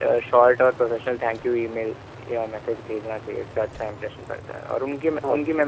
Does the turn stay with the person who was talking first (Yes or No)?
Yes